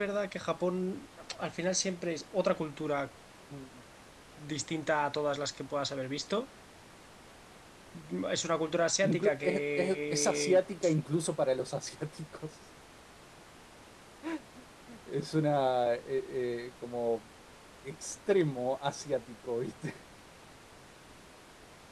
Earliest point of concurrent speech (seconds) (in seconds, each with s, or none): 9.0 s